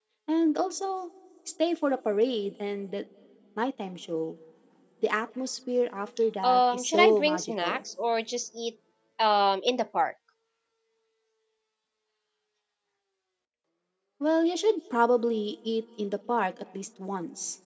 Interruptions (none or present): present